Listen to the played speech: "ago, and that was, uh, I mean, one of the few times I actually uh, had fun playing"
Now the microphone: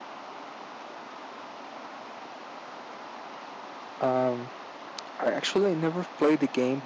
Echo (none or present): none